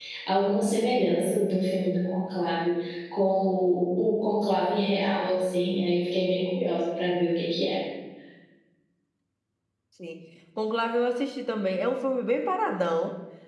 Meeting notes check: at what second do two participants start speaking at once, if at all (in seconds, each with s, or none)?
none